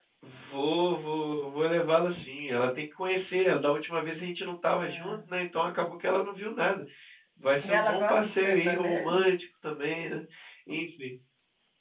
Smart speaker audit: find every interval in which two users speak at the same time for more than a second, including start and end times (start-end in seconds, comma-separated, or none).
7.6-9.2